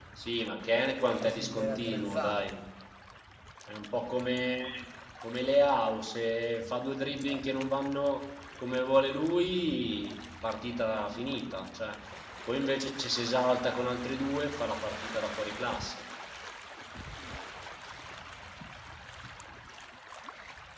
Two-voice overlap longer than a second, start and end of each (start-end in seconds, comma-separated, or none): 1.2-2.6